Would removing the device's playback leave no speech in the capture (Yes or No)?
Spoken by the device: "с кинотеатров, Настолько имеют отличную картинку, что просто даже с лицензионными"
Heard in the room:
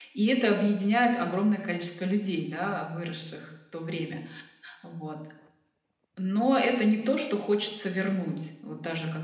No